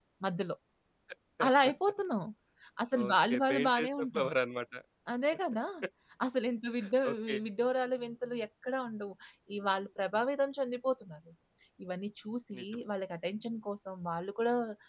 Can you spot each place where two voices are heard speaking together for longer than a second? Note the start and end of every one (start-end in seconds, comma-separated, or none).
3.0-4.3